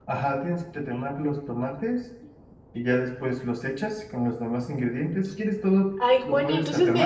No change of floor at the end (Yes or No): No